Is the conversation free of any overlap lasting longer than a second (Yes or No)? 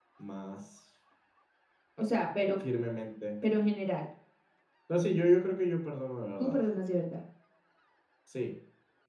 Yes